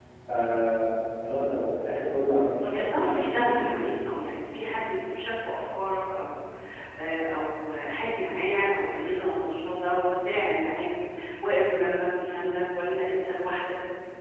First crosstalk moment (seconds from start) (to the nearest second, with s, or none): 3 s